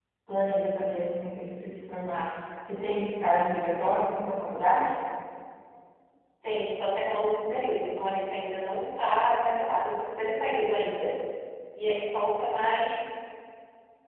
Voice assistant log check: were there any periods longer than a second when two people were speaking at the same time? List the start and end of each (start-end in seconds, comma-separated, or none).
none